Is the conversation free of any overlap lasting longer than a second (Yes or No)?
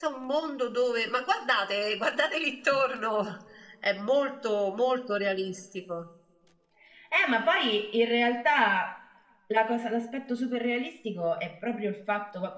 Yes